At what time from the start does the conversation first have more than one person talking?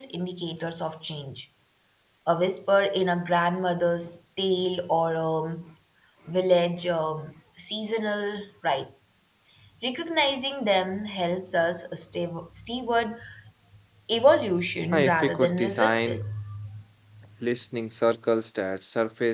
14.9 s

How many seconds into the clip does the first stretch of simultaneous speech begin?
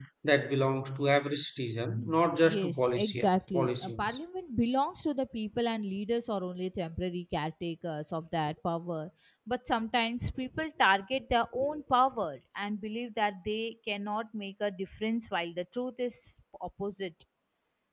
2.4 s

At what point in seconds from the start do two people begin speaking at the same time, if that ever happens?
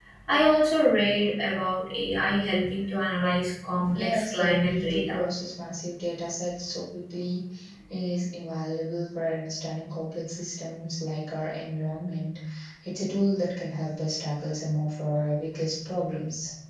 4.0 s

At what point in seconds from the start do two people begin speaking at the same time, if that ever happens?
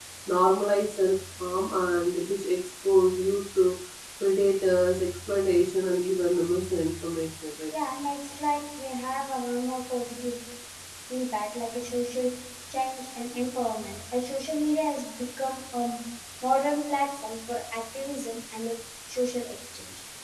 none

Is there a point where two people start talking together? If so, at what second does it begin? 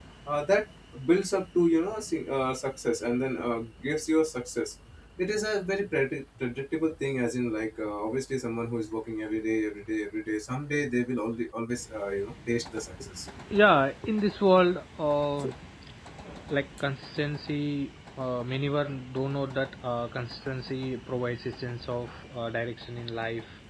none

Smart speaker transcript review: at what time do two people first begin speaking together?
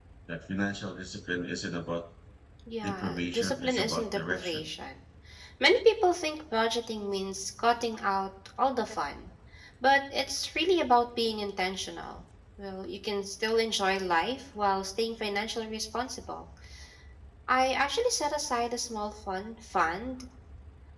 2.8 s

